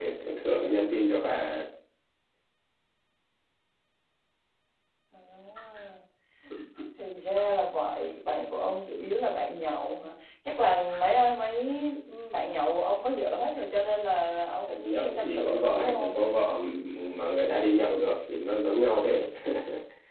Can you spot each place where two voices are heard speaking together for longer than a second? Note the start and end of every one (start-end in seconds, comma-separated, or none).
14.8-16.2